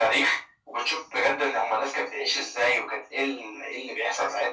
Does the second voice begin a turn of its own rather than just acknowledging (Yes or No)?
No